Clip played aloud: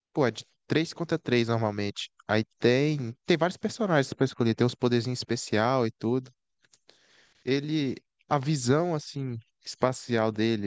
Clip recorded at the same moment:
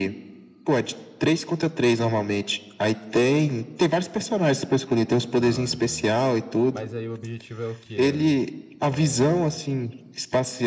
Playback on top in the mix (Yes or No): Yes